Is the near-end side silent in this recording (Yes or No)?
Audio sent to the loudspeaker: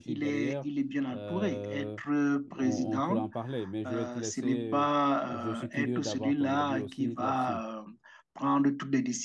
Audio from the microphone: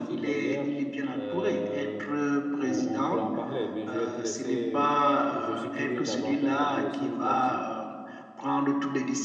Yes